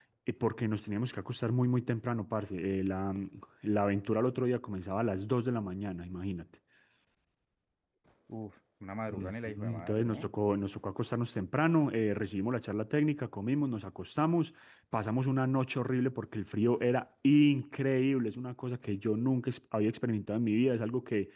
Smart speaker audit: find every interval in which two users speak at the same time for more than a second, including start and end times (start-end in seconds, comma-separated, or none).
9.1-10.3